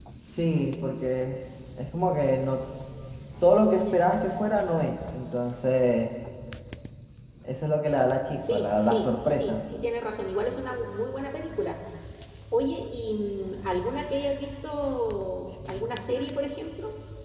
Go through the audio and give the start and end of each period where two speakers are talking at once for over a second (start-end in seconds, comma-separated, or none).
8.4-9.7